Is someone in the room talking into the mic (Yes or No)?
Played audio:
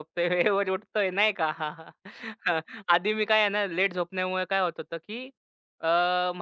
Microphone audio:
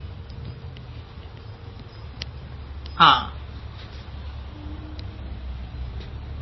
Yes